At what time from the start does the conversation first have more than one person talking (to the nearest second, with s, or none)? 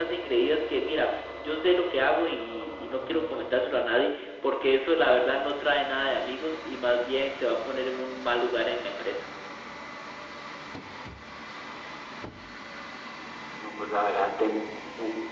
none